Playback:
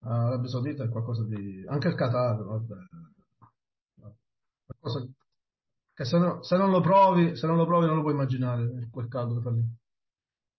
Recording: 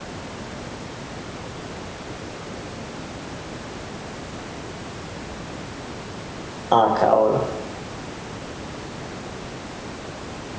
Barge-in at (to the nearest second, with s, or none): 7 s